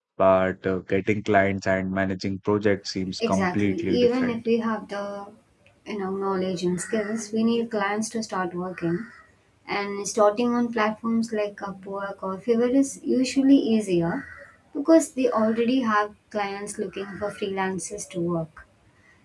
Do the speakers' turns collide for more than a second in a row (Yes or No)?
Yes